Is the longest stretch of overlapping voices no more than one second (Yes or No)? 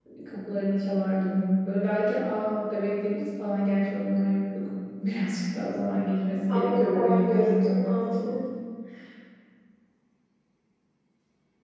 No